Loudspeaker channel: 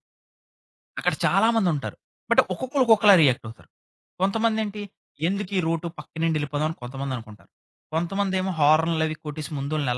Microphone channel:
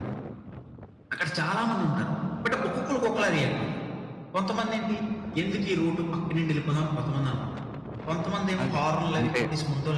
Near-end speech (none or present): present